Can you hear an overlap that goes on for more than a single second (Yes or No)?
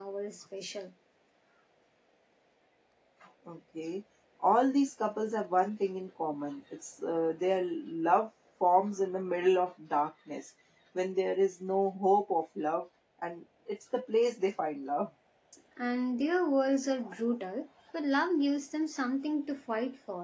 No